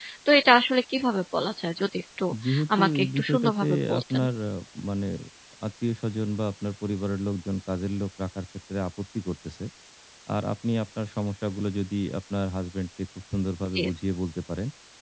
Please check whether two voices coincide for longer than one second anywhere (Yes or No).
Yes